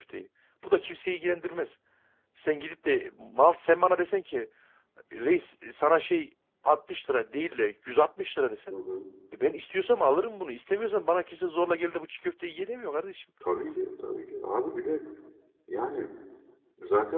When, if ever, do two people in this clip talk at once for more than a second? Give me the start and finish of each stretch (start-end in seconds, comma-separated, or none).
none